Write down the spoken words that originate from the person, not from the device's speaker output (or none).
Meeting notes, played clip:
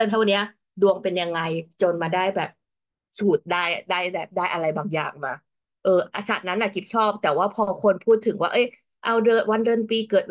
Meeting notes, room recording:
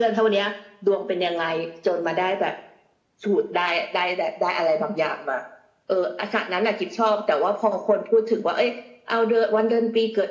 none